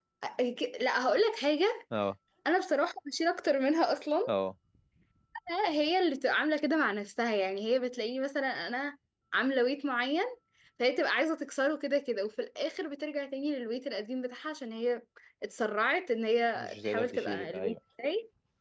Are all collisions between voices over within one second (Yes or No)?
No